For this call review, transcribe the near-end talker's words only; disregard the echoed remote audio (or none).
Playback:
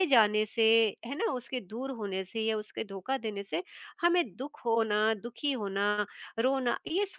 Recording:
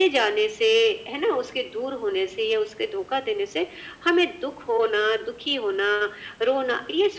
none